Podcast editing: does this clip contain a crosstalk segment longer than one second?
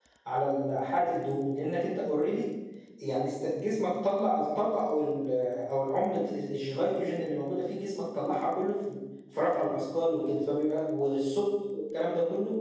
No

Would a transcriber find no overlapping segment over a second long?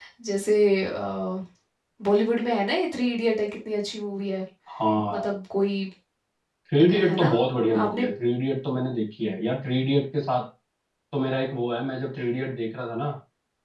Yes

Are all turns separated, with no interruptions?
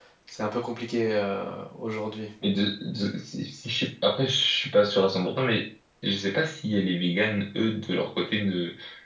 Yes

